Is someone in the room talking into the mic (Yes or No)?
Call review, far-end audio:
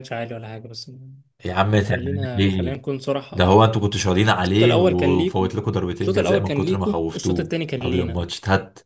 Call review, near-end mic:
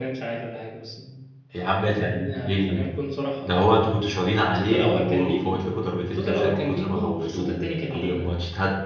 No